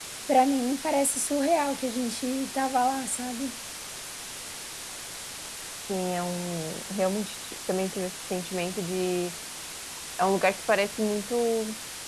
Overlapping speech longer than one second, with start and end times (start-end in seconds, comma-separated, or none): none